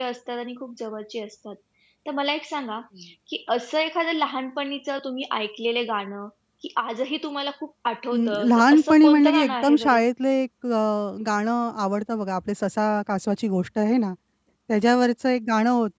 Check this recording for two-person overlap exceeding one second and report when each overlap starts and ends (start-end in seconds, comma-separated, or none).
8.1-10.0